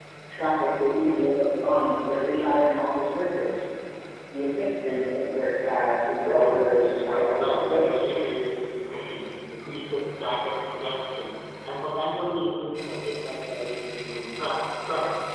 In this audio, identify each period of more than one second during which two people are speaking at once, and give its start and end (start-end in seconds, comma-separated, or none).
6.2-8.1